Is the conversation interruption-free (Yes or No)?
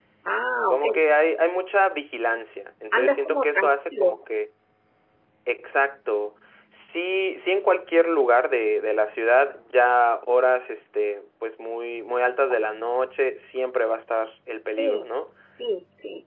No